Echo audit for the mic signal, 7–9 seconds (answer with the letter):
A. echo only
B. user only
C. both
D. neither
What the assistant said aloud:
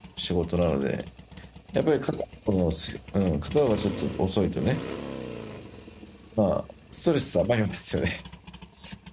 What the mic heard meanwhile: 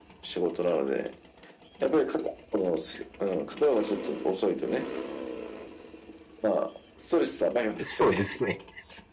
C